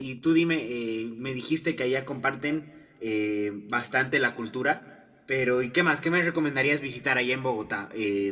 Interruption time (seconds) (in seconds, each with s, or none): none